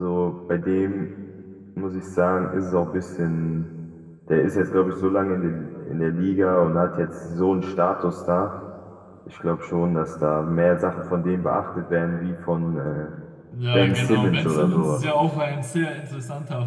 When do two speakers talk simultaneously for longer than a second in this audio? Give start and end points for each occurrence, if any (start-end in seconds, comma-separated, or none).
13.7-15.0